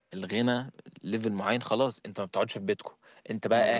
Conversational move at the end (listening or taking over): listening